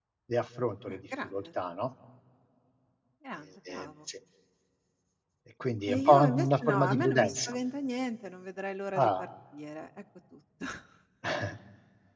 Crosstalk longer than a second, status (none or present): present